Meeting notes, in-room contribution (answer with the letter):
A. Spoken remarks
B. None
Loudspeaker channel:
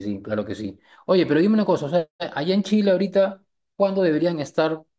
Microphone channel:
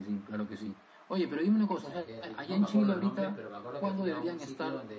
A